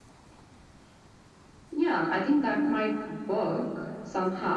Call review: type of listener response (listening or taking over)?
listening